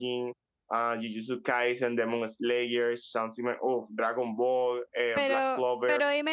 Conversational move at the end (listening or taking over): taking over